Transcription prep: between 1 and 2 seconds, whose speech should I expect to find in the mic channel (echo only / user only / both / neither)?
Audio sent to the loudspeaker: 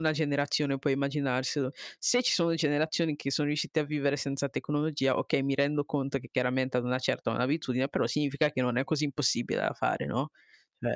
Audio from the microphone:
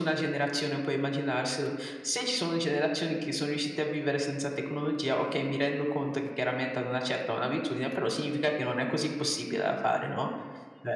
echo only